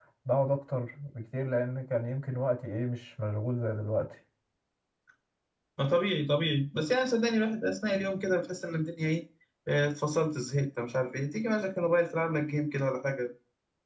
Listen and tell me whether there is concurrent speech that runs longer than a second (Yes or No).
No